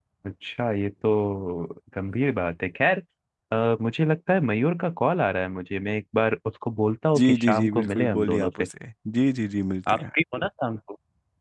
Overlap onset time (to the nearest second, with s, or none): 7 s